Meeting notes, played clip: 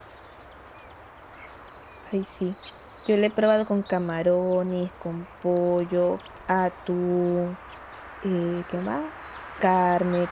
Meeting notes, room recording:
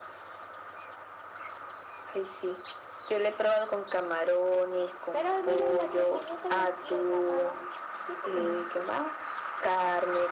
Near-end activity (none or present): present